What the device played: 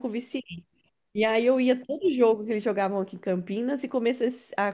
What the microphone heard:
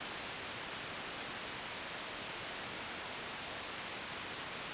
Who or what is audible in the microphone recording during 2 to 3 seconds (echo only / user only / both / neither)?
neither